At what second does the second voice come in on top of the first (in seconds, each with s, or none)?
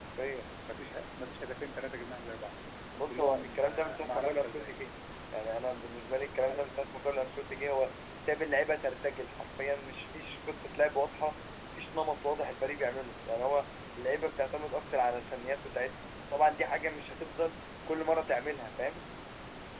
3.1 s